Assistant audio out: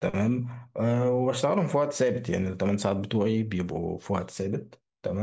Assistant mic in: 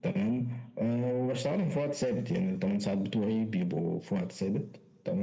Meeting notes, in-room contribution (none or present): none